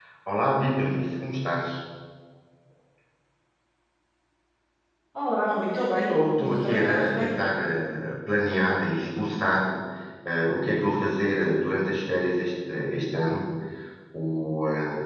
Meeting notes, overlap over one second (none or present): present